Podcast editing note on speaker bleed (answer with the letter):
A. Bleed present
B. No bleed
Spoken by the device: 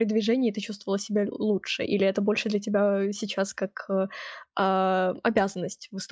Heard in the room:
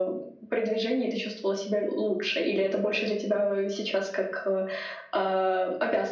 A